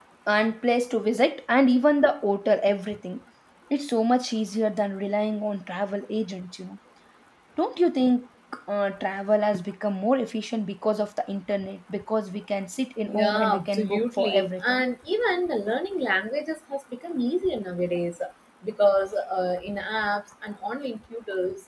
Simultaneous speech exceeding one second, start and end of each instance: 13.1-14.8

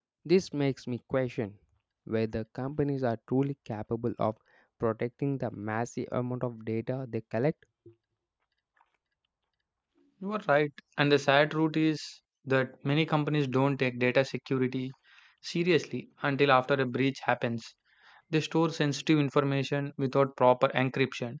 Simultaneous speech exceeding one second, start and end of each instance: none

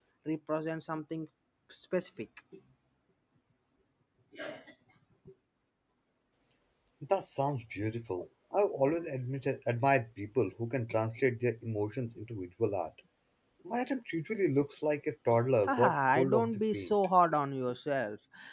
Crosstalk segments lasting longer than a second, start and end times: 15.6-16.9

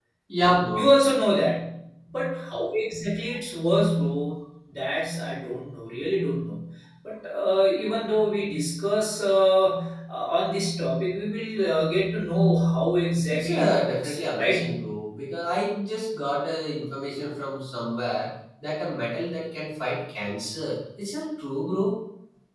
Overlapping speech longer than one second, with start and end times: 13.3-14.6

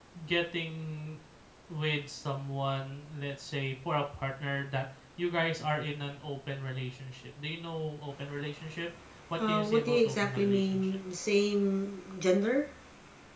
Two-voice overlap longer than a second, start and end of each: 9.5-11.0

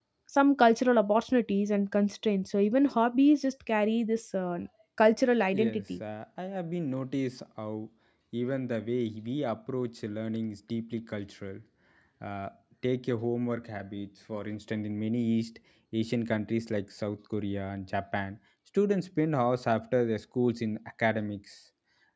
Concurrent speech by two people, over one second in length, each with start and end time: none

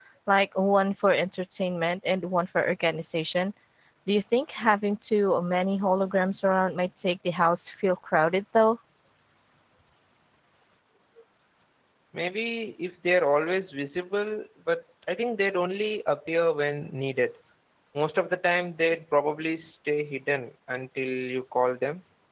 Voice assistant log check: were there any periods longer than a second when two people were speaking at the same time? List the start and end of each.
none

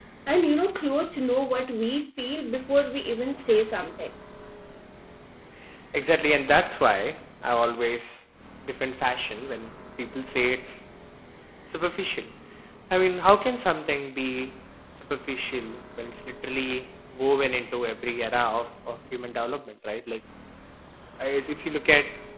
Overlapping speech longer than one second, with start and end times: none

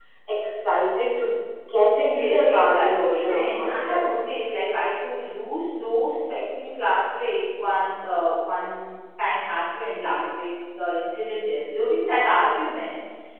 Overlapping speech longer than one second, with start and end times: 2.1-4.1

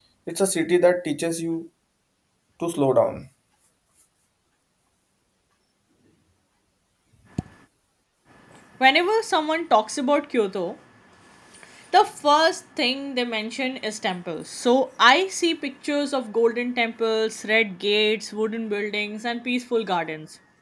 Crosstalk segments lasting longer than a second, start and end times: none

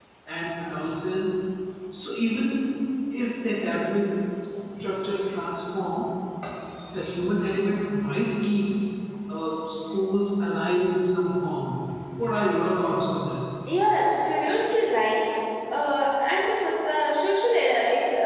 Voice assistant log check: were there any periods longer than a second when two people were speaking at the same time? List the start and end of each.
none

